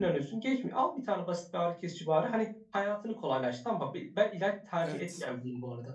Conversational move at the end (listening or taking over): listening